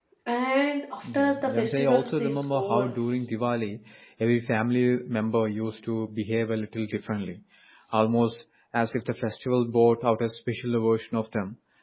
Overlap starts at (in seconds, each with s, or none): 1.0 s